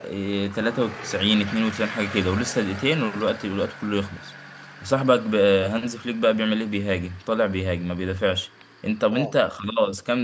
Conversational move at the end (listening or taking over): listening